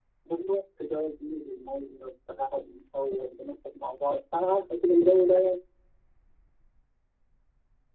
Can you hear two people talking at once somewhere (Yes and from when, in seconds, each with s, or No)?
No